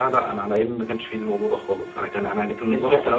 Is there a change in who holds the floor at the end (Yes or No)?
No